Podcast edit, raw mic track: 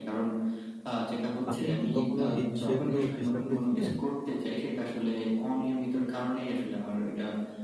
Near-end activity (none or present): present